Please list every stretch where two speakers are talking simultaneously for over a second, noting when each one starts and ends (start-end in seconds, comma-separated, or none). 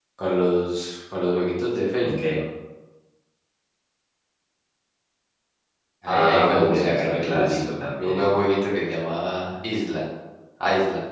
6.1-8.3